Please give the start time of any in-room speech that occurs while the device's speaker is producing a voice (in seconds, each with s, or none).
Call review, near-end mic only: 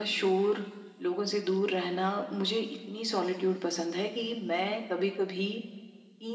none